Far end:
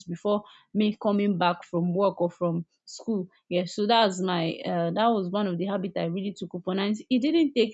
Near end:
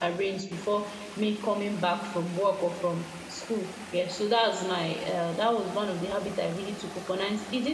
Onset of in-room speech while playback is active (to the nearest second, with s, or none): none